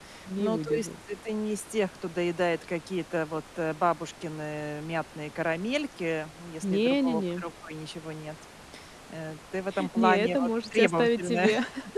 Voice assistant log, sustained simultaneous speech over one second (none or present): present